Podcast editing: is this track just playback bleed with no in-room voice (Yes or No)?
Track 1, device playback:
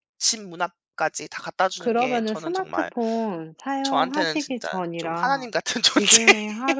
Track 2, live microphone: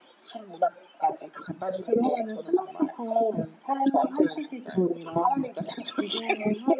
Yes